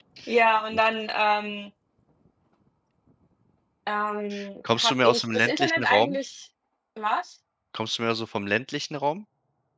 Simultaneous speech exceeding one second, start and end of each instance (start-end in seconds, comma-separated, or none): 4.8-6.2